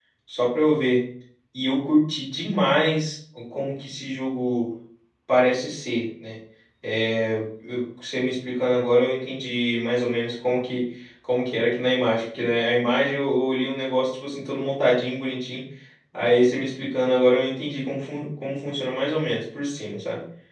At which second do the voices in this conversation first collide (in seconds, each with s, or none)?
none